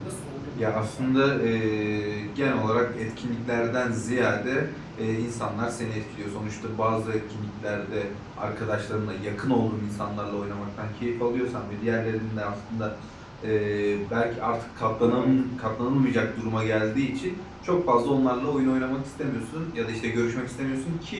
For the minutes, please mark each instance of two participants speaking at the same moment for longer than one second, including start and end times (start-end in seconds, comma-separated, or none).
none